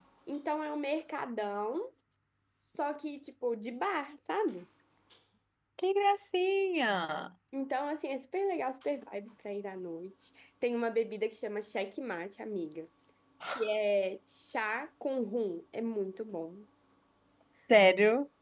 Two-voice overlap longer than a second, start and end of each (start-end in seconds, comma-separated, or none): none